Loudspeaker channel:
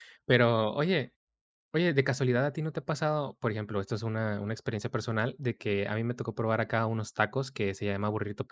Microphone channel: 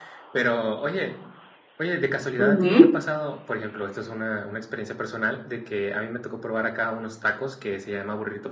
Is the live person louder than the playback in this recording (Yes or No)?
Yes